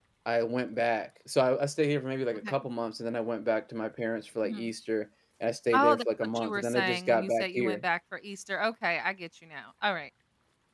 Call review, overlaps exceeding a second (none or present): present